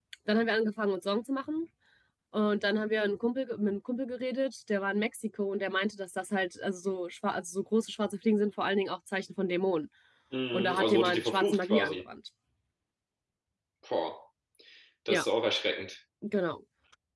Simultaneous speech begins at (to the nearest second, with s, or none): 11 s